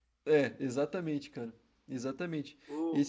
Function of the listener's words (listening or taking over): listening